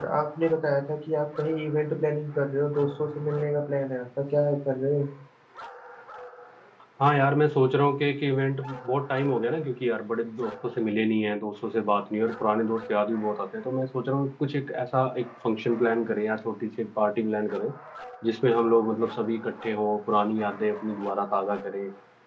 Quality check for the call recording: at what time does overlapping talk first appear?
none

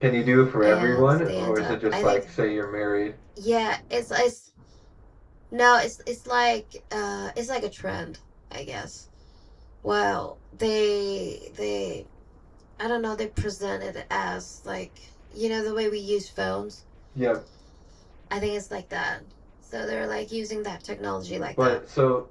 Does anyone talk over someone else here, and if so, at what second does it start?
0.6 s

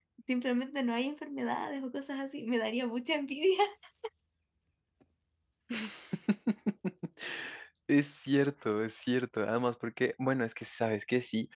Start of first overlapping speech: none

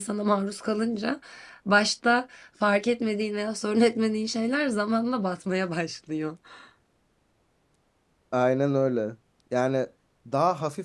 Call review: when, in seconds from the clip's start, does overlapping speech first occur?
none

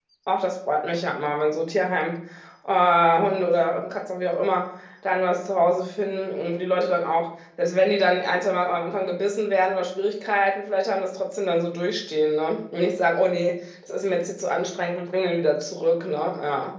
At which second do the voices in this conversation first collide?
none

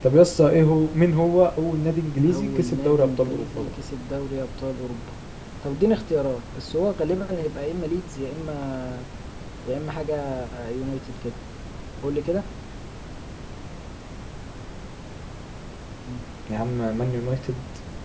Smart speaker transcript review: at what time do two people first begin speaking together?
2.2 s

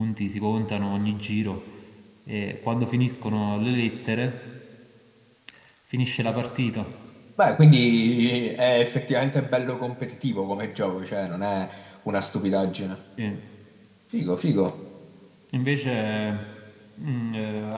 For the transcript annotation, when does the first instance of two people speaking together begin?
none

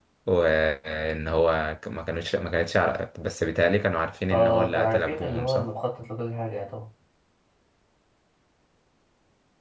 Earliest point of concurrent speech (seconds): 4.3 s

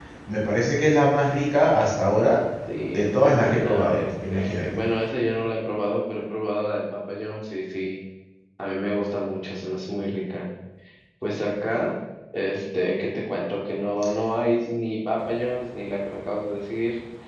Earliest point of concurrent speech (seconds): 2.9 s

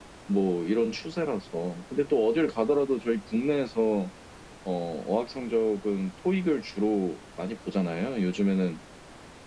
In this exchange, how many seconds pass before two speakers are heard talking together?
none

